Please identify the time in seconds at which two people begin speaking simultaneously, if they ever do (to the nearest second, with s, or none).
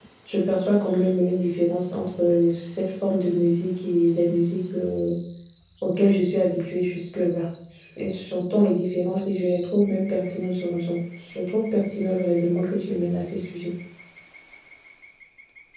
none